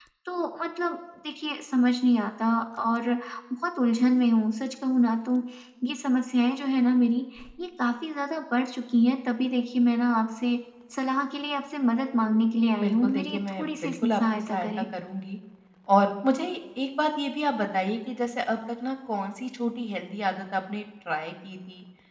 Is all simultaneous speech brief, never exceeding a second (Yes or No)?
No